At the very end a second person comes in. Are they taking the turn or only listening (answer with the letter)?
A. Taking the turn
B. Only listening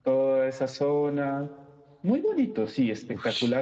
A